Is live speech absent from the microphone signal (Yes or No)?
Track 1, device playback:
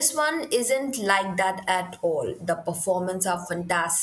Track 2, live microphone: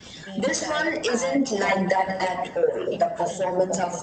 No